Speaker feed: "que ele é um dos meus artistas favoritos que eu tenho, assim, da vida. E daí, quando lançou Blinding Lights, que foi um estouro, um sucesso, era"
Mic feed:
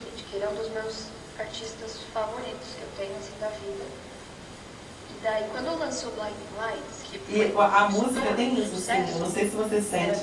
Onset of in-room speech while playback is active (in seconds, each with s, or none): 7.3 s